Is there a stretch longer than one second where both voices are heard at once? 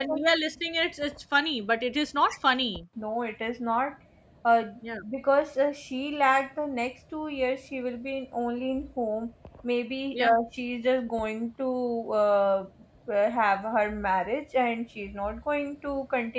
No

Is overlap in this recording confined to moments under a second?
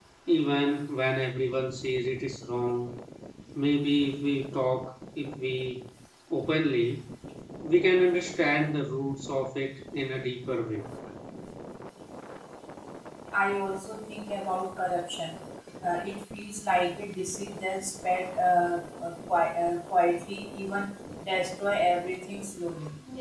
Yes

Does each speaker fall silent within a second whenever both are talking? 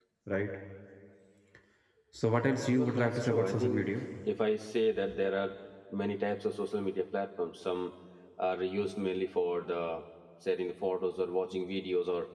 No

